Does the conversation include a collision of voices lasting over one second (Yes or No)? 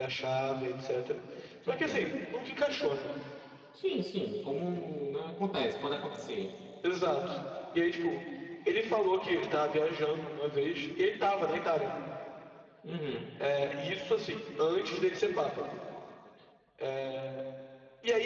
No